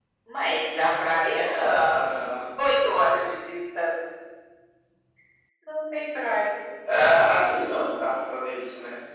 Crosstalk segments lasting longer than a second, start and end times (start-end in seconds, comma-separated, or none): none